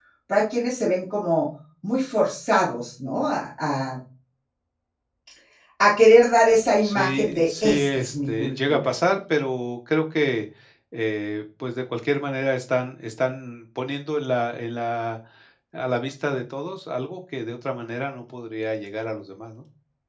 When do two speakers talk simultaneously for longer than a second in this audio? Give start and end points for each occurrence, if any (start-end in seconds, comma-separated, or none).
6.8-8.9